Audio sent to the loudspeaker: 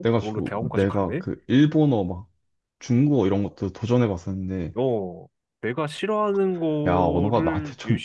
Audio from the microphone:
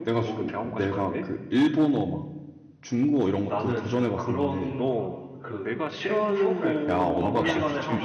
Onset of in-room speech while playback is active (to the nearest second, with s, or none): 3 s